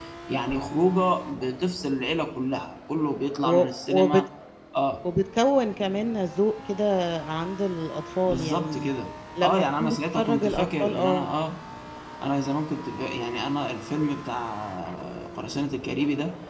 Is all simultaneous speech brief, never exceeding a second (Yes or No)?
No